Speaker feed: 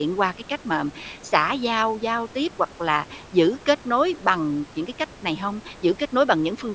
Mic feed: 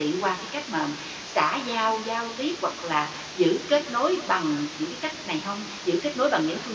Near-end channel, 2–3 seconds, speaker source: echo only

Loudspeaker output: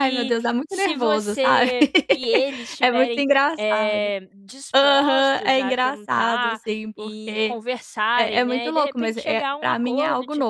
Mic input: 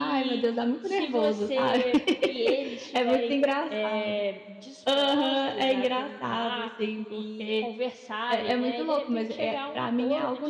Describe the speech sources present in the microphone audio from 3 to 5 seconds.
echo only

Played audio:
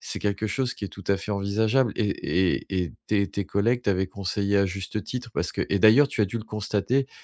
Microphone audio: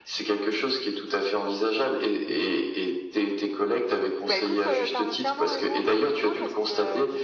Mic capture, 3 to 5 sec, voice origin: both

